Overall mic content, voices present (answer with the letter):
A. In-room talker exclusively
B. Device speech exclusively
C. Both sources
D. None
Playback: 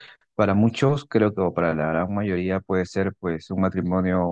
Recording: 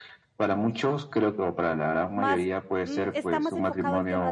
C